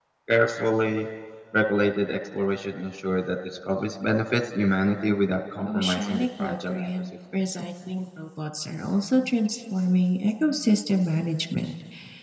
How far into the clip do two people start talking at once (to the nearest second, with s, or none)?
6 s